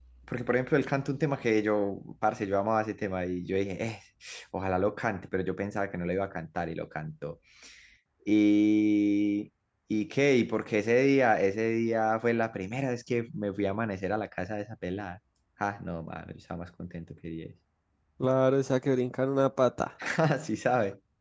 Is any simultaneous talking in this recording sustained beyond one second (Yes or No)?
No